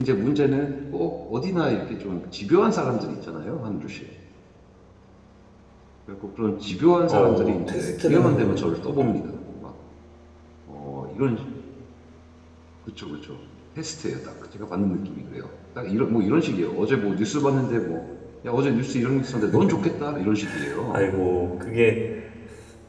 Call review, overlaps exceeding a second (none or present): present